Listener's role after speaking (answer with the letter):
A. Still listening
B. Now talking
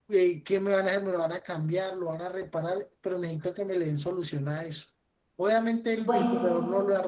A